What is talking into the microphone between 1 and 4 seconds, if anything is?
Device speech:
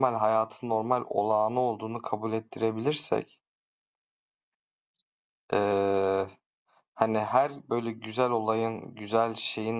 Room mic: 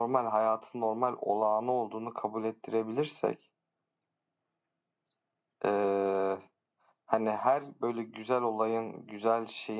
echo only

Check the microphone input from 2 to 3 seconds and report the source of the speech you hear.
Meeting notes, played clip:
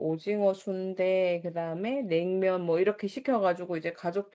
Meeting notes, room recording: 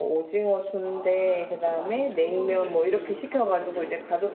both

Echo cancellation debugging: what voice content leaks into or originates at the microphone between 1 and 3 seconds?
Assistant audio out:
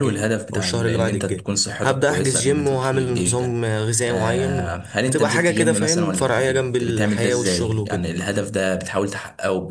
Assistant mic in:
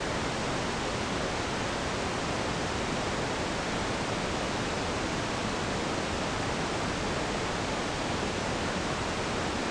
neither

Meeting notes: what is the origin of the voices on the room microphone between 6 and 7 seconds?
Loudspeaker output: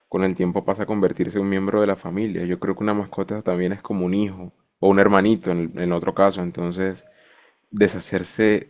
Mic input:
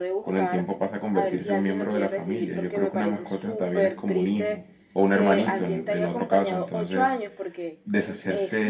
both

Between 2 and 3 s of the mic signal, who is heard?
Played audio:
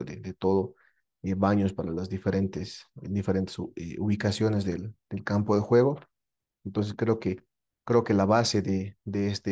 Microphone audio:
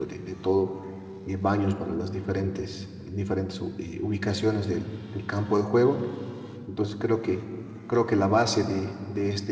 echo only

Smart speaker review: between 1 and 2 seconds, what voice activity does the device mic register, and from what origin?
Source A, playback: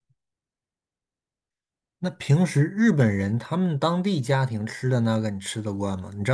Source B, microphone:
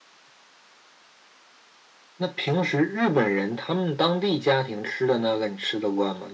neither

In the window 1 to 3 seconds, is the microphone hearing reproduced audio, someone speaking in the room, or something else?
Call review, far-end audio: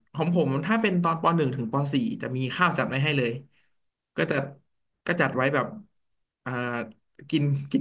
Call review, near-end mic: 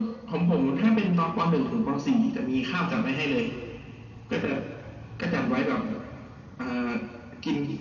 echo only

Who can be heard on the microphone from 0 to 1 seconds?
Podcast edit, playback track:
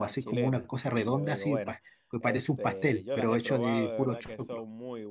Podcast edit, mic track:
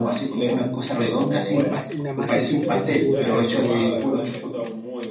echo only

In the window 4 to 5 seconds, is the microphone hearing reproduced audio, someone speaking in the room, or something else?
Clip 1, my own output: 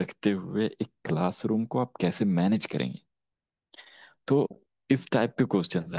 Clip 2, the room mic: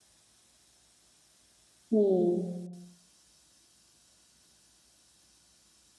neither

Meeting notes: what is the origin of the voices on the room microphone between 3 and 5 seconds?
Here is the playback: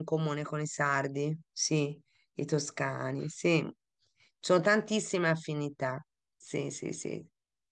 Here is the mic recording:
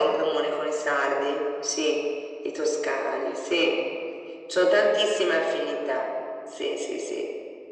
echo only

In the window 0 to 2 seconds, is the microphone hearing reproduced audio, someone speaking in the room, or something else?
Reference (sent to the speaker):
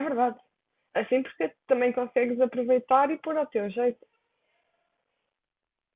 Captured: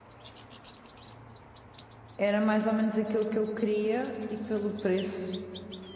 neither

